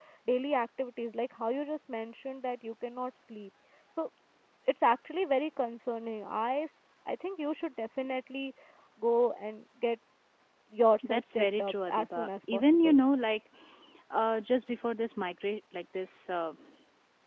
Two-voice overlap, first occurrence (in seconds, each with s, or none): 11.1 s